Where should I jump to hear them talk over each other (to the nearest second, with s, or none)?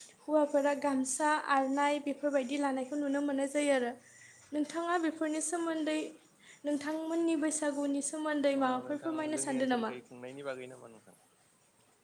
9 s